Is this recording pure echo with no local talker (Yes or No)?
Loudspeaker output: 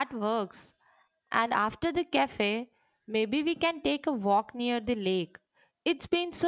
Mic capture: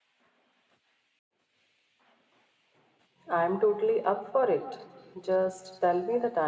No